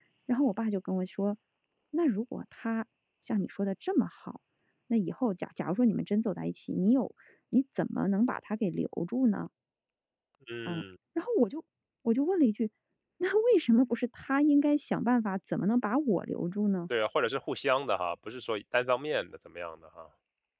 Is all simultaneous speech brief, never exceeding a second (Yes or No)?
Yes